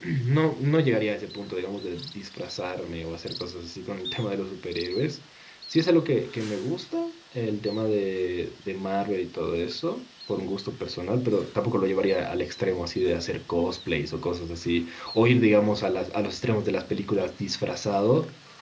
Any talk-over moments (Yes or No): No